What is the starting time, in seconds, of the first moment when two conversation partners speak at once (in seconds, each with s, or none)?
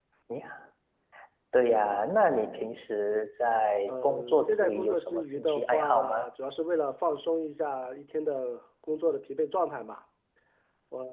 3.9 s